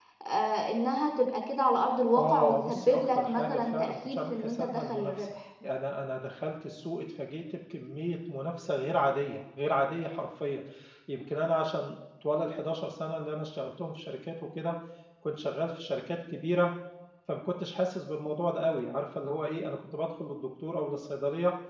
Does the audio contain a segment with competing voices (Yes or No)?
Yes